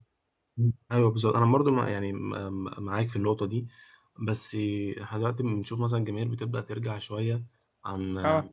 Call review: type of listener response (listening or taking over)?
listening